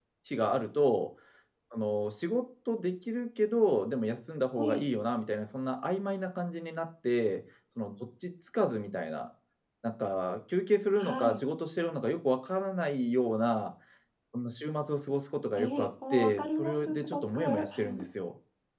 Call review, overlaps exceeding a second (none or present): present